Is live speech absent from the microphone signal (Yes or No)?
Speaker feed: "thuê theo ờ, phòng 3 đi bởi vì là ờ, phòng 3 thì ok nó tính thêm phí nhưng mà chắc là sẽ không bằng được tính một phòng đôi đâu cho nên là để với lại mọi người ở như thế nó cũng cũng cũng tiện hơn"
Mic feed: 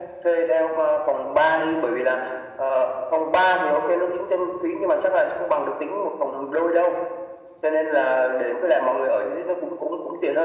Yes